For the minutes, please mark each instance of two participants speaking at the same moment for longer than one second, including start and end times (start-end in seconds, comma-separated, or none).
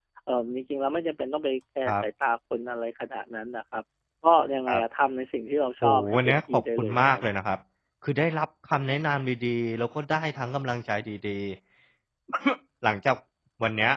5.8-7.2